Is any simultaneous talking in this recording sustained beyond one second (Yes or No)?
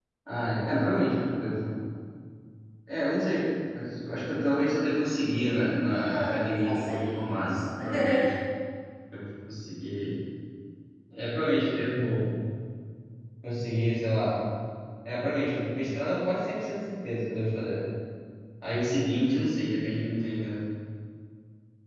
Yes